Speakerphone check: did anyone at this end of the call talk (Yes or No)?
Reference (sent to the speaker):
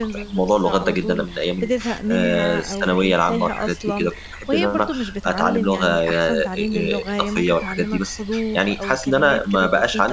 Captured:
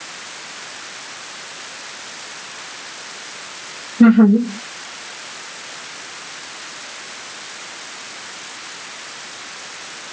Yes